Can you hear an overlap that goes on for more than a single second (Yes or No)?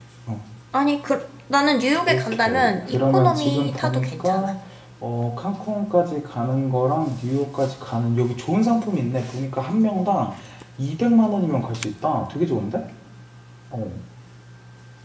Yes